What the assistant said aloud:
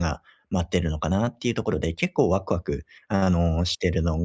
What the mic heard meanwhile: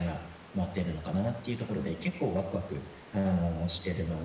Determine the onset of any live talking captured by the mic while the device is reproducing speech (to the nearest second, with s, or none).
2 s